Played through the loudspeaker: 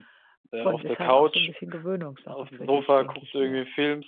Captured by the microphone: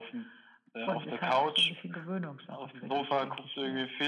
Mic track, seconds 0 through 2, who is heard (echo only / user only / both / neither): echo only